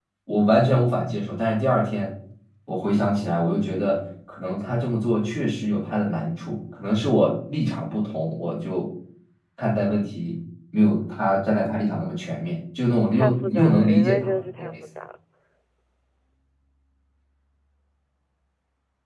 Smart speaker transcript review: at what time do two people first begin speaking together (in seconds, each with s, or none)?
13.2 s